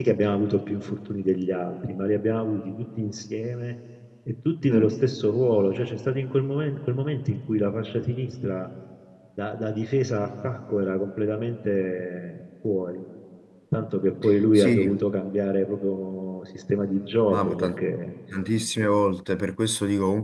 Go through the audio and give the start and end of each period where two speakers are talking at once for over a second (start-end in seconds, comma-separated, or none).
none